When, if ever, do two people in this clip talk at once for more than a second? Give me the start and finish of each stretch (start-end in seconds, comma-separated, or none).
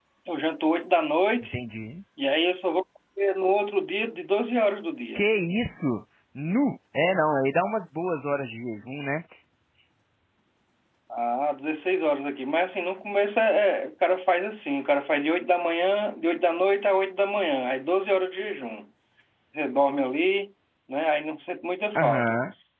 none